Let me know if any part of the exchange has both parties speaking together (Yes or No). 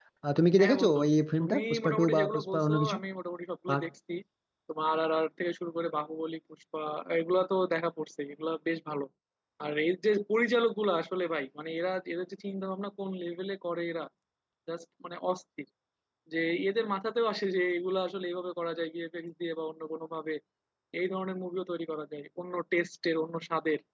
Yes